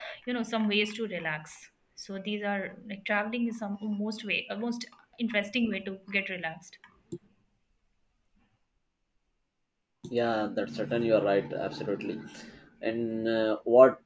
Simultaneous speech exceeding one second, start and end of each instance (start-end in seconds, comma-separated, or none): none